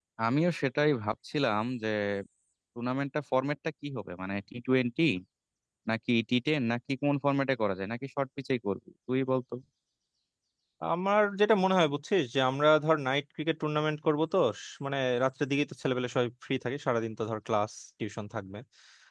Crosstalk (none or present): none